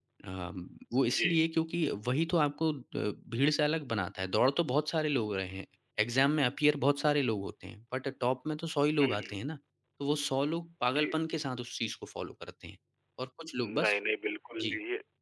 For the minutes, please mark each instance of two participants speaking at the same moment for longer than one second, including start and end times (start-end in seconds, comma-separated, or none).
none